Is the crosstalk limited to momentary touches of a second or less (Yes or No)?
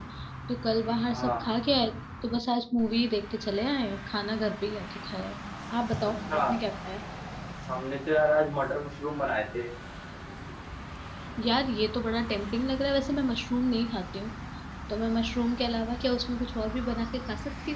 Yes